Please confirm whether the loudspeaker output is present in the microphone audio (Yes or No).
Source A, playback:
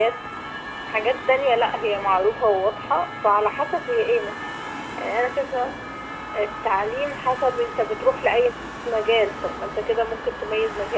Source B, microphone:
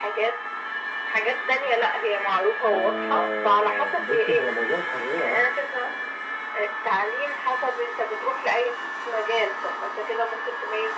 Yes